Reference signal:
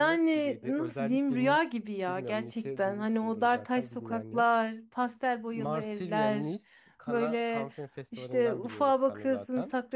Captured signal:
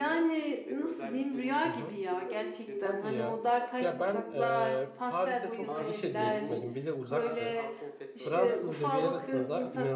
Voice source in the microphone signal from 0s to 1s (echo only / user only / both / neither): echo only